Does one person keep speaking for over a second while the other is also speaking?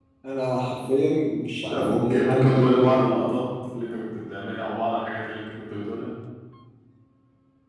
Yes, from 1.7 s

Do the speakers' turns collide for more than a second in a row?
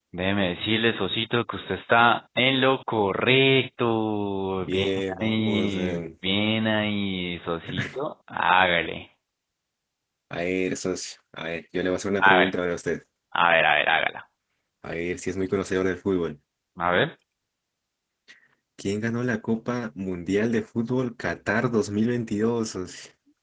Yes, from 4.6 s

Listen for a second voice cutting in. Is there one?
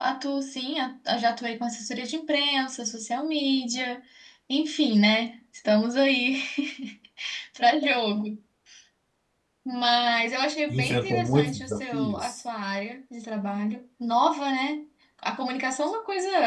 Yes, from 10.7 s

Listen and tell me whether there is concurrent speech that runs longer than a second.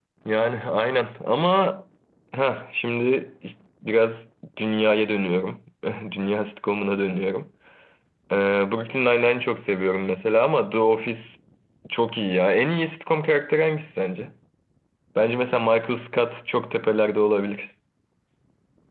No

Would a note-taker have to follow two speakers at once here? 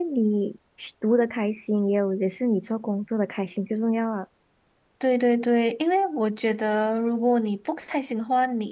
No

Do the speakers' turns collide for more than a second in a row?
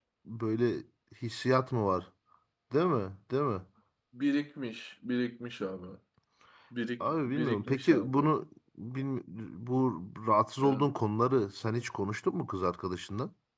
Yes, from 7.0 s

